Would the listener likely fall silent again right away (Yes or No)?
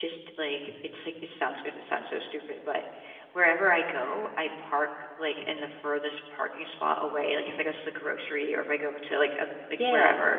Yes